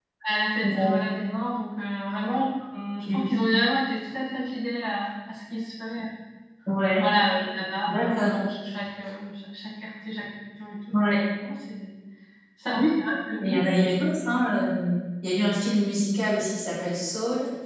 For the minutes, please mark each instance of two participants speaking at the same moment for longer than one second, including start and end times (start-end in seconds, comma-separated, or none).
none